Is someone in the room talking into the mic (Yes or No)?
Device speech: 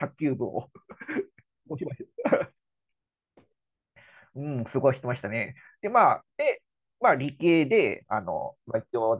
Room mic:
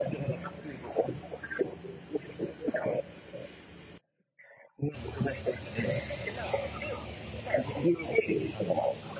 No